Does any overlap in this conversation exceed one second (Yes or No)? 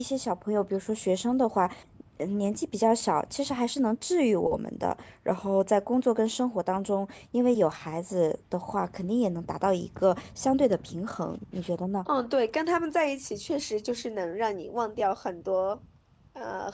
No